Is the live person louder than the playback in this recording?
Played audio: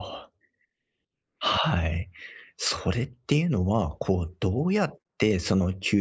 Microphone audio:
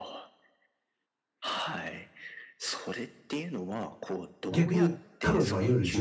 Yes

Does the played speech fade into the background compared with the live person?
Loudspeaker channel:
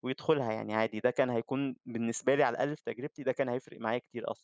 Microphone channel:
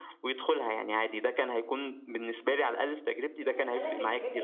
No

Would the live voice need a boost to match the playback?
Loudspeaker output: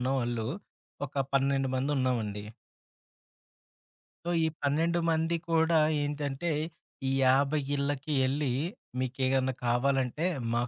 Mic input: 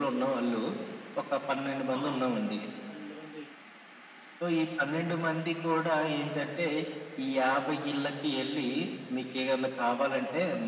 Yes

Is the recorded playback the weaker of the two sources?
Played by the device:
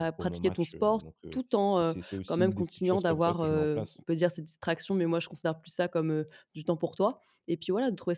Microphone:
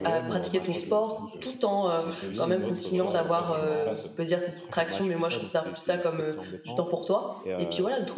No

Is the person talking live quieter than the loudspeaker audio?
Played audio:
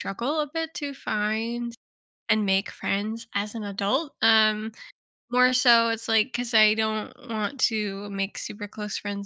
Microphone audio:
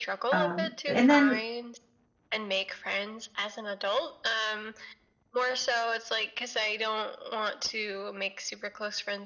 No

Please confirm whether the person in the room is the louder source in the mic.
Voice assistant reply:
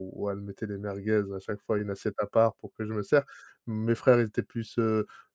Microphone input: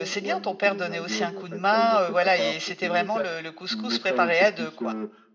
Yes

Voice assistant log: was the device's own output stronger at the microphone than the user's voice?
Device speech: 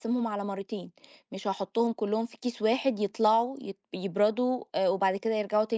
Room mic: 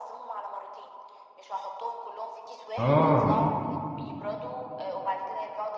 No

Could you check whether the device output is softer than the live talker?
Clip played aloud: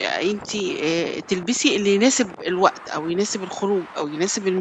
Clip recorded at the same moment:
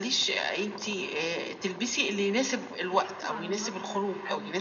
No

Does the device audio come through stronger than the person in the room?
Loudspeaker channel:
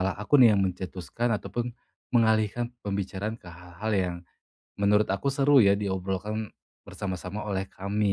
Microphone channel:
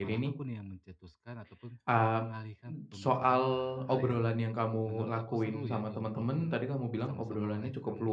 No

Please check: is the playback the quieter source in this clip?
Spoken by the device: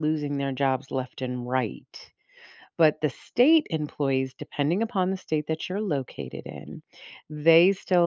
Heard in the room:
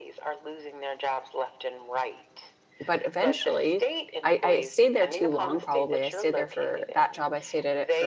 Yes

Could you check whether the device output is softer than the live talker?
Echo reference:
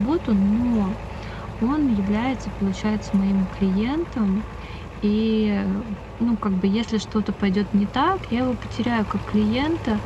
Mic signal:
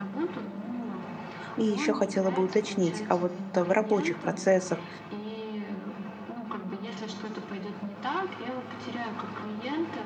Yes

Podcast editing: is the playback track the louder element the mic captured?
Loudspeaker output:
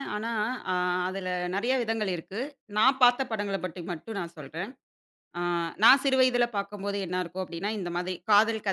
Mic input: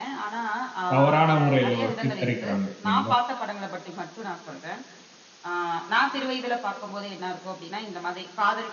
No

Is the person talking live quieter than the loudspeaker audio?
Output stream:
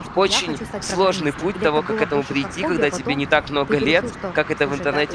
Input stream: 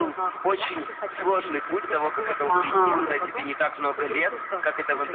No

